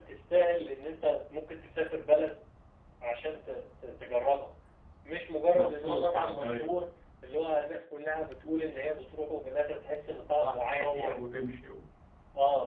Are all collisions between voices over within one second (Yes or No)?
No